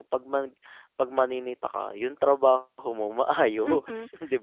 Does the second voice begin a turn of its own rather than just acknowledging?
Yes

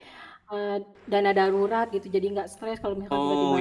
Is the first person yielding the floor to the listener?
Yes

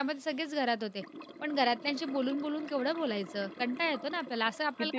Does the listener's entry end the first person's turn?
Yes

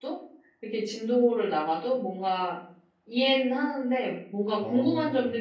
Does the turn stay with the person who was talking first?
Yes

